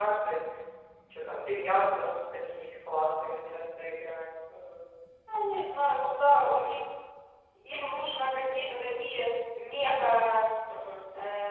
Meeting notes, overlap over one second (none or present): none